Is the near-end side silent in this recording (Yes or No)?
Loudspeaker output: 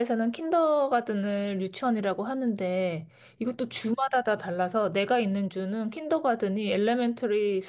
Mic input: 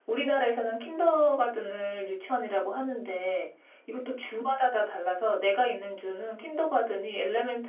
Yes